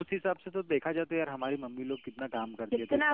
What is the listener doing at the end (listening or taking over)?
listening